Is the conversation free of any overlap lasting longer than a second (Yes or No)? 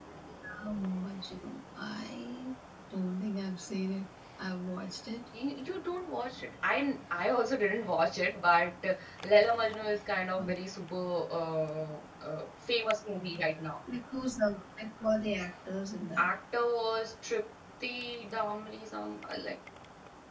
Yes